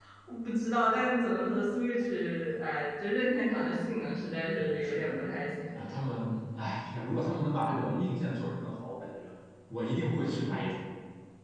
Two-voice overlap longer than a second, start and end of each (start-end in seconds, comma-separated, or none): none